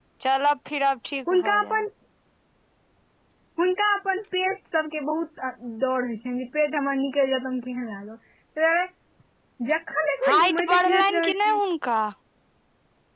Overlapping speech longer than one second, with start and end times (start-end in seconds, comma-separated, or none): 10.3-11.6